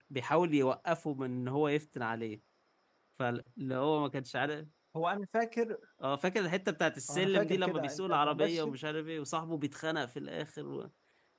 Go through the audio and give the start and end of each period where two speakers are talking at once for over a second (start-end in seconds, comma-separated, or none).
7.1-8.8